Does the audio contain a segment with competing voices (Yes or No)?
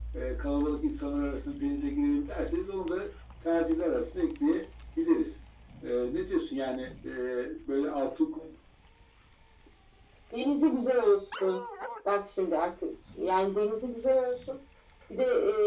No